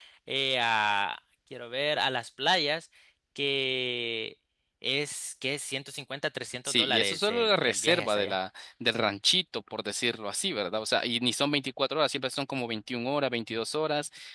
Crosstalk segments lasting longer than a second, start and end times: 6.7-8.3

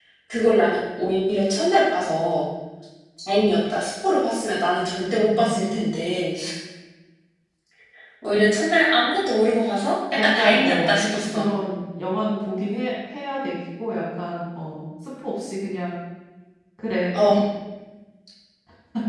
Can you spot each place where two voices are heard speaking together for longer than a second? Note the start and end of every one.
10.2-11.5

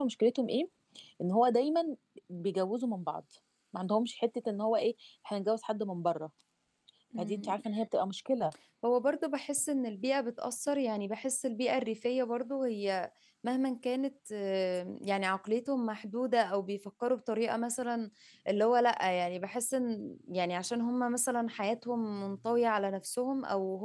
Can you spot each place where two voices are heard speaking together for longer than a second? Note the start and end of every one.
none

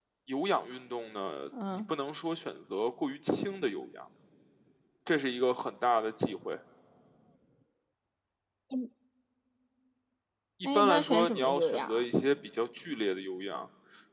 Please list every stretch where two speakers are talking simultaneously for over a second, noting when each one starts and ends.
10.6-12.1

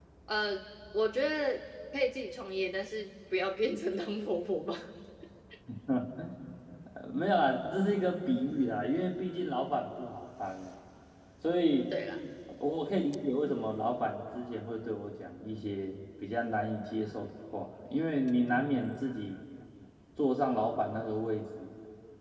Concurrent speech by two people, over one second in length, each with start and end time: none

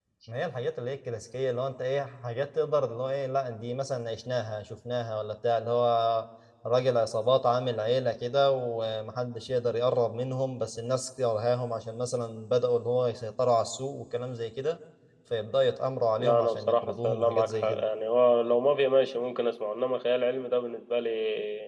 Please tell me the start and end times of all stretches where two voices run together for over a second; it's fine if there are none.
16.2-17.8

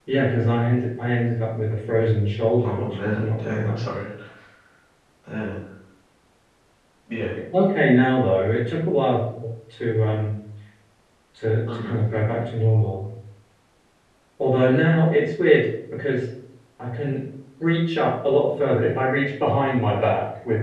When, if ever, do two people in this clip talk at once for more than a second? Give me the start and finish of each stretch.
2.6-3.9

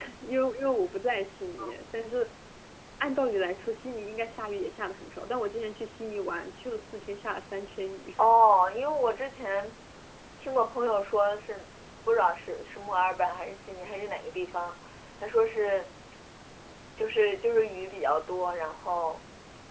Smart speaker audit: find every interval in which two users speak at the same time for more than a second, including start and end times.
none

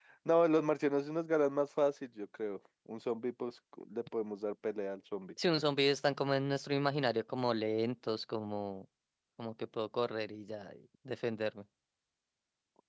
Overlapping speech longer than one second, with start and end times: none

